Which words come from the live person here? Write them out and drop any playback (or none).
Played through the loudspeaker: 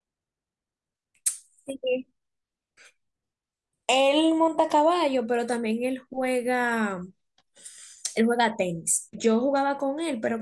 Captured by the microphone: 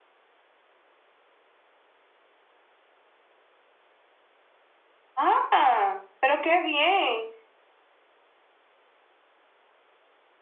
Ah, pero qué bien.